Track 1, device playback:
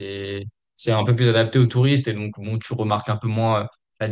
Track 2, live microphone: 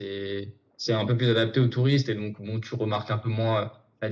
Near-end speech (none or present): none